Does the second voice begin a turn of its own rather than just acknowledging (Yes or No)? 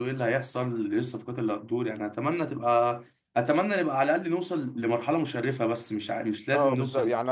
Yes